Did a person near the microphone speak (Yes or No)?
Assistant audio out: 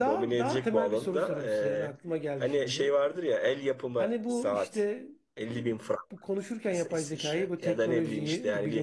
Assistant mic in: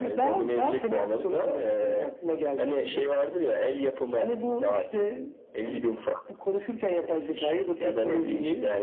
No